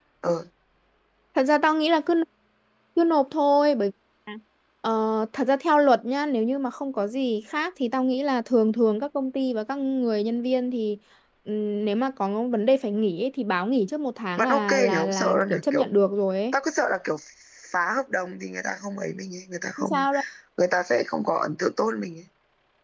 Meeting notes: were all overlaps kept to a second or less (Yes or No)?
No